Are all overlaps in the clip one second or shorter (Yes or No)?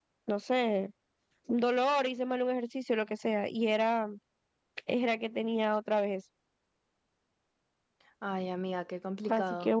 Yes